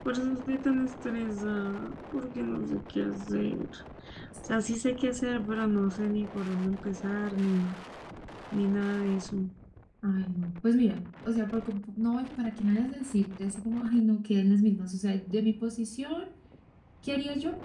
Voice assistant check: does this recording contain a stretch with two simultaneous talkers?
No

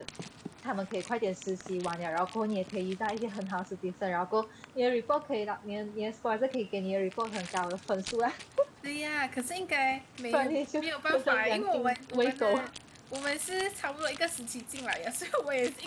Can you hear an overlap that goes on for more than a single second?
Yes, from 10.3 s

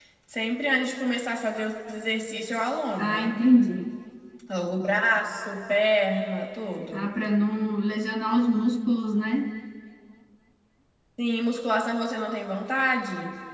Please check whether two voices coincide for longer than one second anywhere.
No

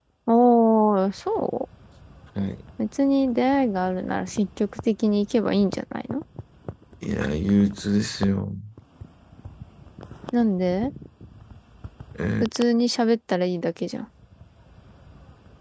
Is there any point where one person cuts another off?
No

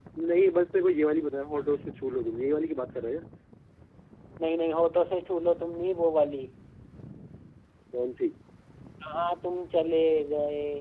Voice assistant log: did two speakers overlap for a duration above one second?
No

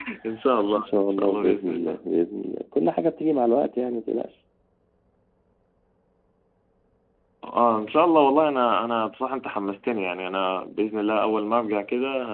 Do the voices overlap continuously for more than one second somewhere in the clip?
Yes, from 0.8 s

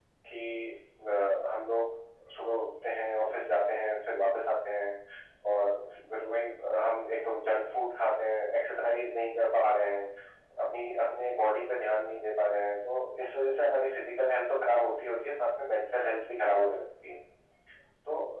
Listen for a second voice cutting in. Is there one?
No

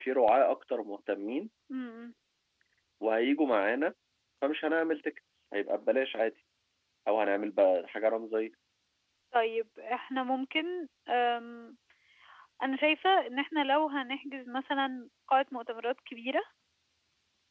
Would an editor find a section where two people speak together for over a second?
No

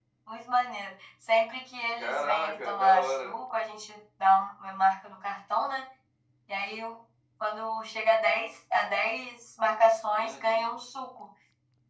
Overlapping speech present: Yes, from 2.0 s

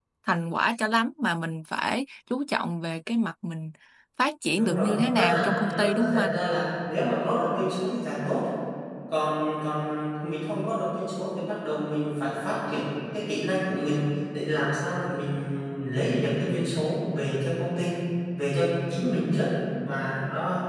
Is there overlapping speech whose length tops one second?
Yes, from 4.6 s

